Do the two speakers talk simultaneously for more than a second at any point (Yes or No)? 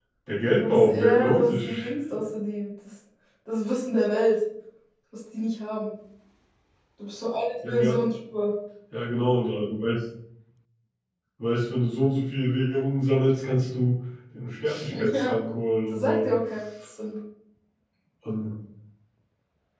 Yes